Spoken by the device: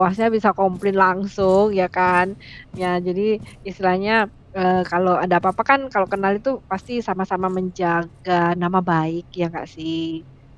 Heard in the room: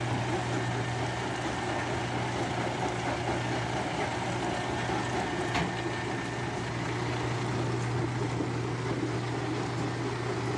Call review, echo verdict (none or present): none